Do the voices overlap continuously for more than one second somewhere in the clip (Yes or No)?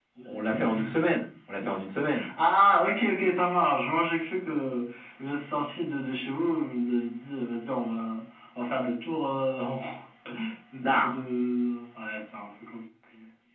No